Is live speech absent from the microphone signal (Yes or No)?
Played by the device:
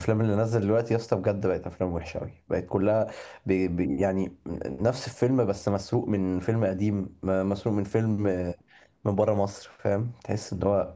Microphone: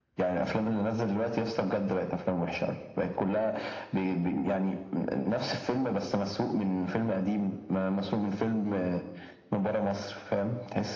Yes